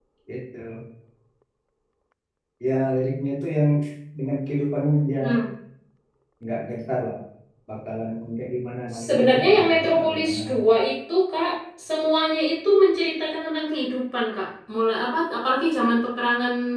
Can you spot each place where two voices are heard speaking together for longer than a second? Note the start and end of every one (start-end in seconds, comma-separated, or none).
9.1-10.6